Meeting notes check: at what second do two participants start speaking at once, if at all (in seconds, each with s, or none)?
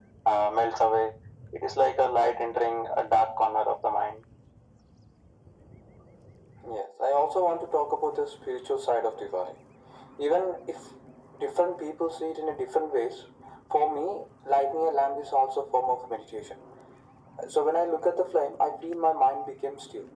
none